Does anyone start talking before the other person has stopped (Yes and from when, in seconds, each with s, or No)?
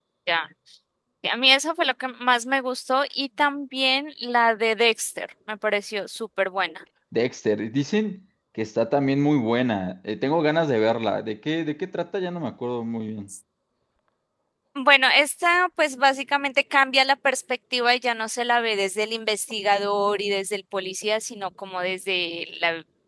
No